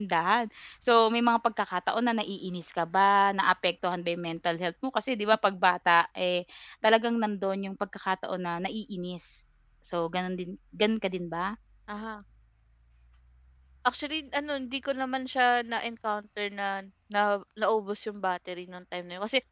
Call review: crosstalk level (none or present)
none